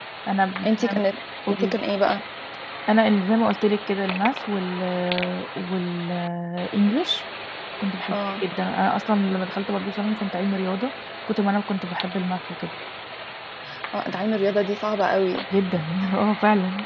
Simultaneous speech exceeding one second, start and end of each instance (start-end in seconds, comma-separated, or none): none